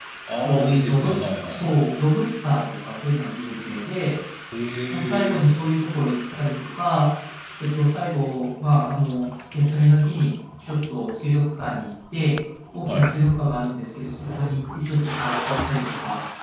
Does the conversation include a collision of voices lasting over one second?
Yes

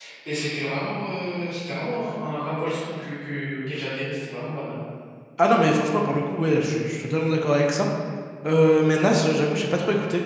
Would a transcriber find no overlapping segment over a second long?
Yes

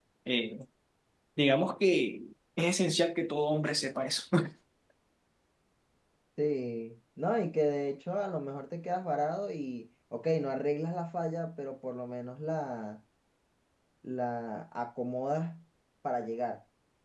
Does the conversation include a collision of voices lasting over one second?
No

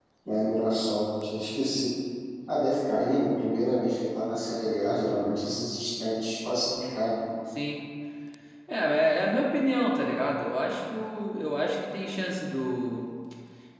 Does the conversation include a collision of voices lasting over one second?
No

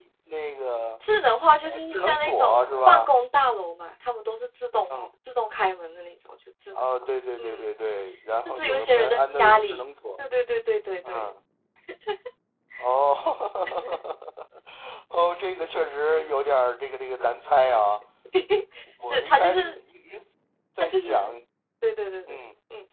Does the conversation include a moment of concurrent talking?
Yes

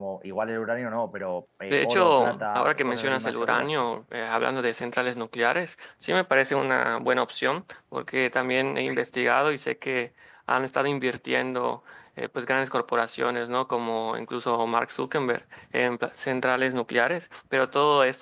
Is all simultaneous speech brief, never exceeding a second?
No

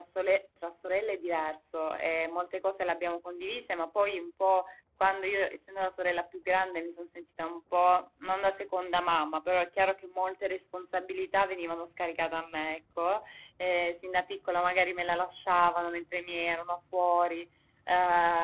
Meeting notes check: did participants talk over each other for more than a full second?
No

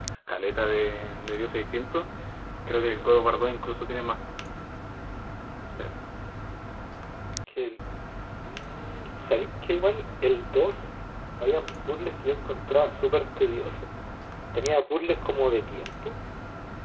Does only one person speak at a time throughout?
Yes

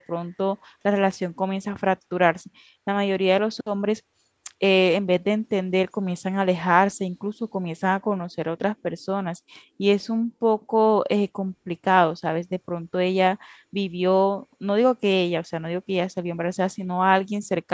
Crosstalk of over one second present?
No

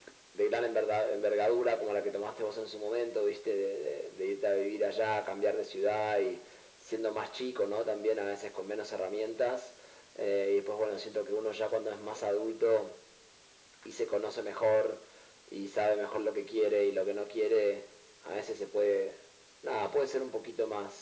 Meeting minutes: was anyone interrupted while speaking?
No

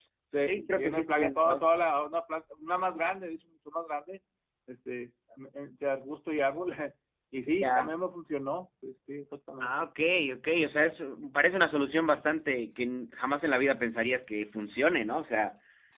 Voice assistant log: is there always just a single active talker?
No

